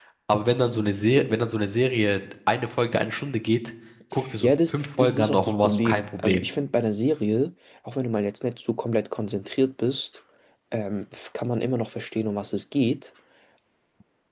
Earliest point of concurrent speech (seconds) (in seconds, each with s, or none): 4.4 s